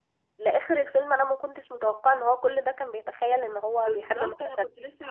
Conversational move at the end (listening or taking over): taking over